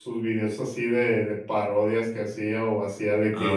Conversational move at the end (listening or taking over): listening